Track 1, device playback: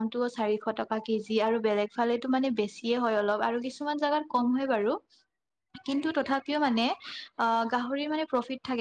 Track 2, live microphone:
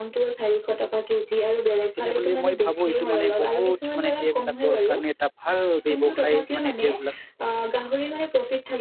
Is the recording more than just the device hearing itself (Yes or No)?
Yes